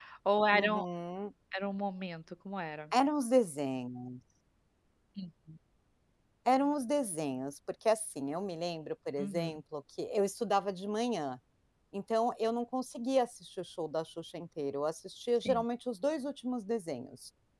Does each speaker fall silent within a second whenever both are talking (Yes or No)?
Yes